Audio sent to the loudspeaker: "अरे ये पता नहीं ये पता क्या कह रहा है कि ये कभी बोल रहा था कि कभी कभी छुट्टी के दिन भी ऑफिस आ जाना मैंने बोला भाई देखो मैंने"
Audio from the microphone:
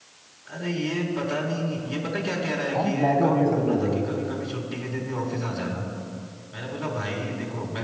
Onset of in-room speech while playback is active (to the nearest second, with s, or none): 3 s